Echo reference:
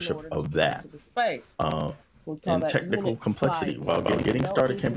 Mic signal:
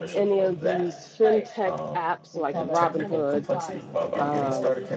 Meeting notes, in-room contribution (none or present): present